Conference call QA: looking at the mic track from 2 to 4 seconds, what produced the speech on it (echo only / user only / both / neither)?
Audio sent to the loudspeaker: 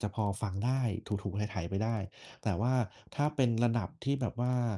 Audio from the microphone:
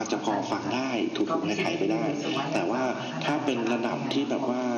both